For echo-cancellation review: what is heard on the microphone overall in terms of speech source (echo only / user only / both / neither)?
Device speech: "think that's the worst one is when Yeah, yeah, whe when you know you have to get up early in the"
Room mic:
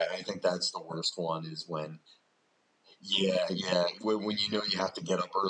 echo only